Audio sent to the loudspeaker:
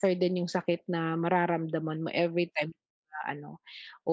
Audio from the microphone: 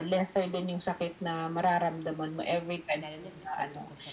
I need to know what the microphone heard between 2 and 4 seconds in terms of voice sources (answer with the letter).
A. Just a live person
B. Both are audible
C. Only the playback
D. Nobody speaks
B